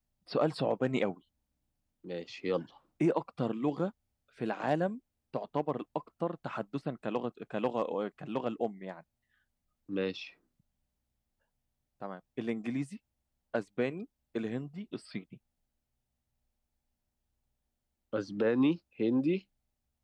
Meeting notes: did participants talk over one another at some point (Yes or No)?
No